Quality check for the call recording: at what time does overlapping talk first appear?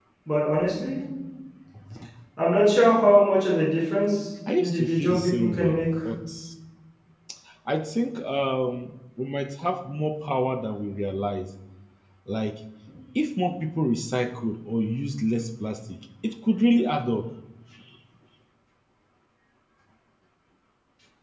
4.5 s

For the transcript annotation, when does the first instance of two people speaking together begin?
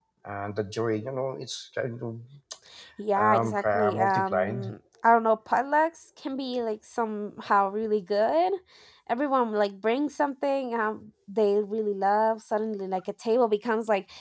3.2 s

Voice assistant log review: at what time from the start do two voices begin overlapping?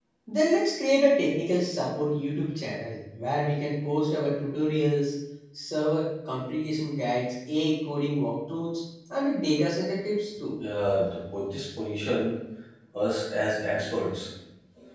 none

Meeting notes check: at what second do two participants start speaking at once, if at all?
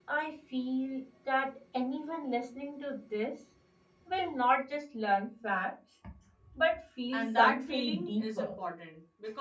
7.1 s

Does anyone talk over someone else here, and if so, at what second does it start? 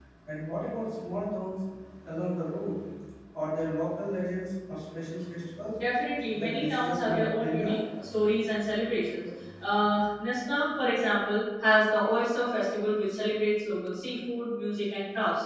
6.4 s

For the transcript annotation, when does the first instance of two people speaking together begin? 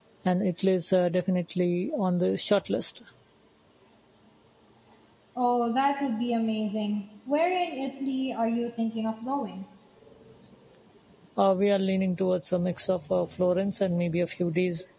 none

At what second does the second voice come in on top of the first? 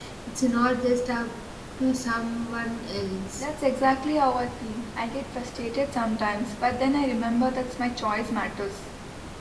none

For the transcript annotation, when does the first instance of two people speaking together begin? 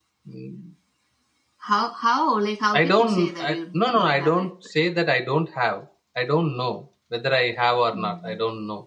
2.8 s

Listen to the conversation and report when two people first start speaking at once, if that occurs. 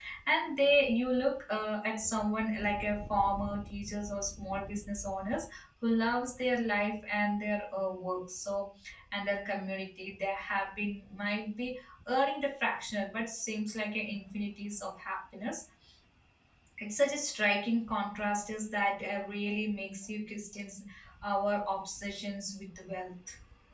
none

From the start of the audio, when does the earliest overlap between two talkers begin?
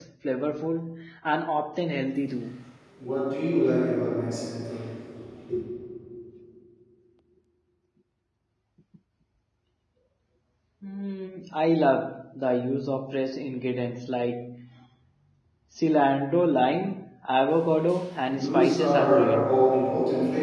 18.3 s

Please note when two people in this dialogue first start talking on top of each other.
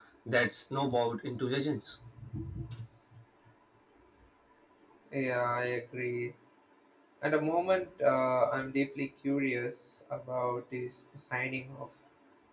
none

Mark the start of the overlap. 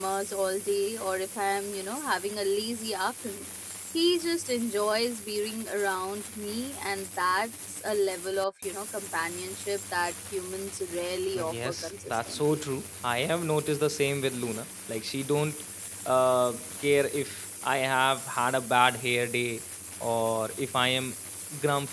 11.3 s

